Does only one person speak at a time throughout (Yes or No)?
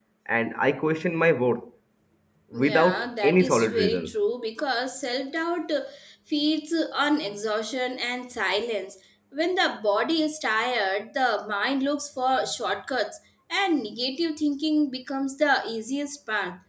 No